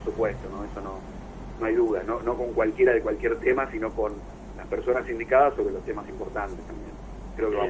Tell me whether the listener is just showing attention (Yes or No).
No